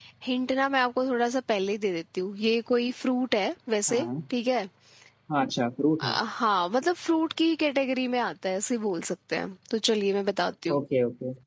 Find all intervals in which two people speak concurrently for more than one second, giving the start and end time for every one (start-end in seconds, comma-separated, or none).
none